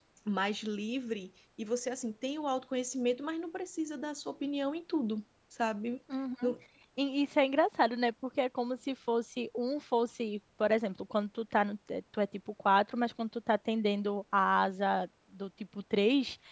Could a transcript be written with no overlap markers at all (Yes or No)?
Yes